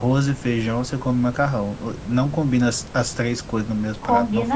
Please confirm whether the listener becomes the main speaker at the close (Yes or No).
Yes